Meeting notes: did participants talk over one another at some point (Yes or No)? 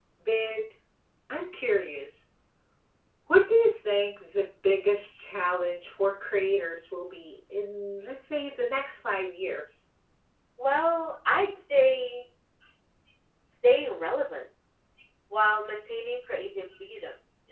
No